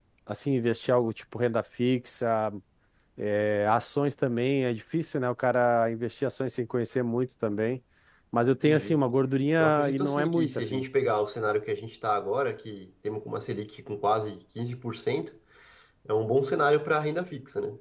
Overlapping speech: Yes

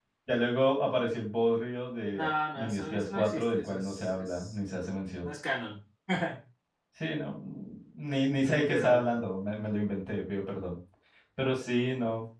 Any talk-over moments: Yes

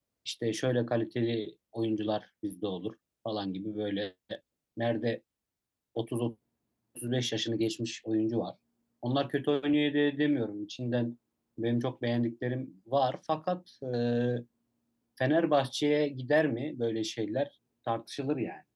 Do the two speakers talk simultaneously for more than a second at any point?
No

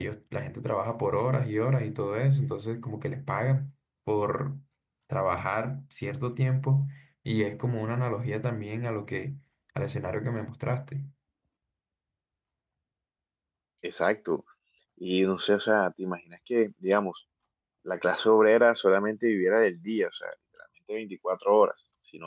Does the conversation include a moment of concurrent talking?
No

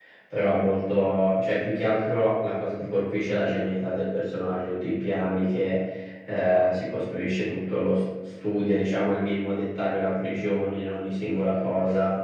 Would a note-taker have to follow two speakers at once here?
No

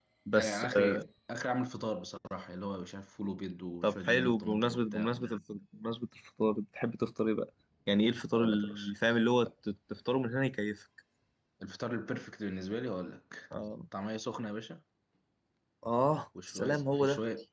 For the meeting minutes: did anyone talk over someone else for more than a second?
Yes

